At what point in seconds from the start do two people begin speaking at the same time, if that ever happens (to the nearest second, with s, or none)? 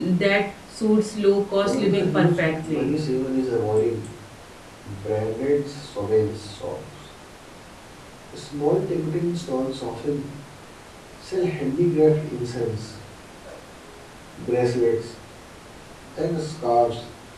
2 s